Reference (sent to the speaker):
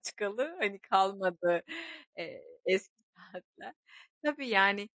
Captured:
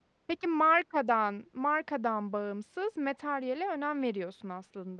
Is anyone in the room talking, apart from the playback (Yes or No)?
Yes